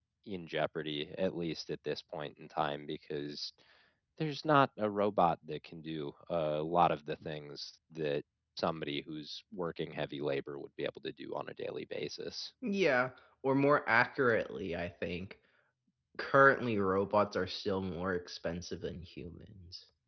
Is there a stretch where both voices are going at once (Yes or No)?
No